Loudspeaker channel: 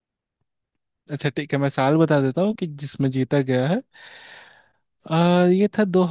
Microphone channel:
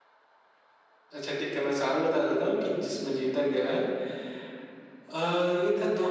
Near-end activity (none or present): none